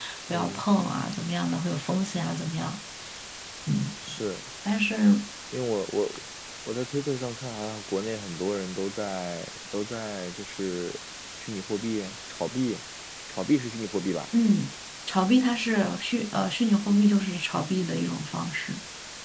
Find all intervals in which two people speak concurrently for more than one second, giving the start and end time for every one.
none

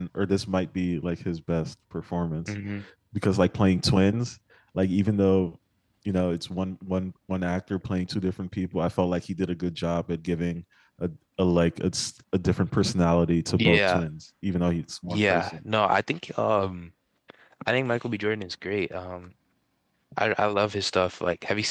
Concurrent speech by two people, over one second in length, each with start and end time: none

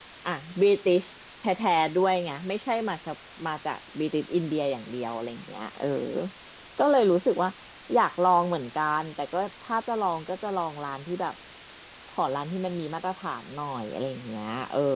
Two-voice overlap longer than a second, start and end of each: none

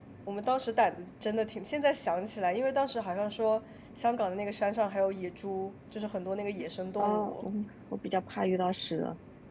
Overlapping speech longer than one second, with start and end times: none

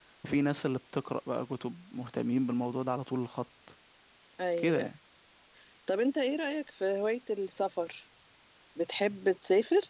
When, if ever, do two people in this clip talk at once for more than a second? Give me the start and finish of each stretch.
none

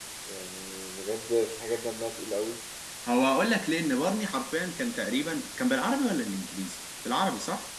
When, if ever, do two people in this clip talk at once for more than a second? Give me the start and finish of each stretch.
none

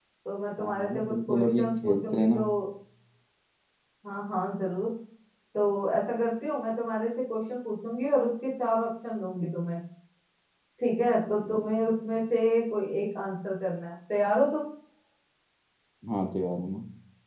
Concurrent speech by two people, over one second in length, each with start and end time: 0.6-2.4

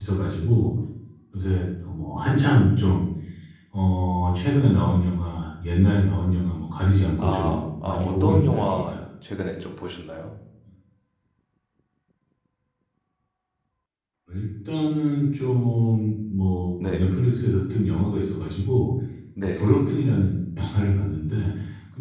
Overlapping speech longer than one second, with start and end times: 7.2-9.0

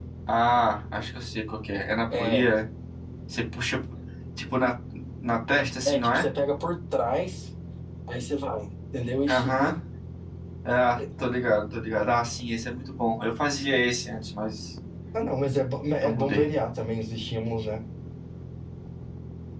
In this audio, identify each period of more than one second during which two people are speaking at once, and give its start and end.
none

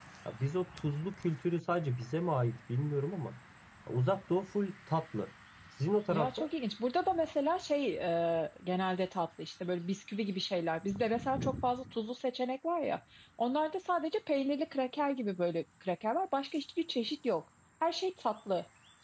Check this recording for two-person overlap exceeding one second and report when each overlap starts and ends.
none

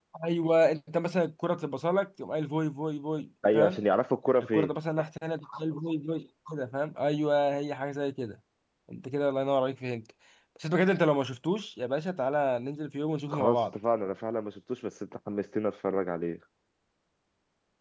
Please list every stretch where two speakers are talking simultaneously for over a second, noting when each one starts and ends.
none

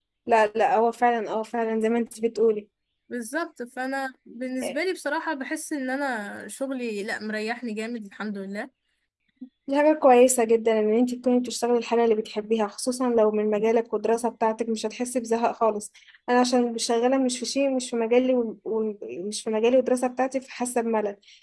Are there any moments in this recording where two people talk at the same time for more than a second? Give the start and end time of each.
none

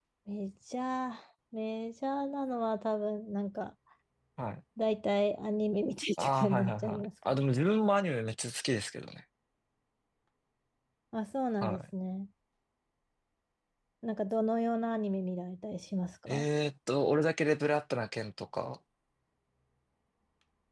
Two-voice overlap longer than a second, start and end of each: 6.2-7.4

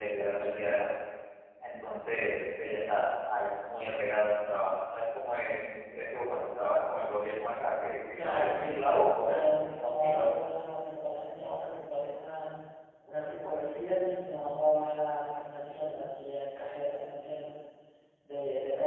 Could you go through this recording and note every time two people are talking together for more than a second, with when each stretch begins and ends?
8.1-10.2

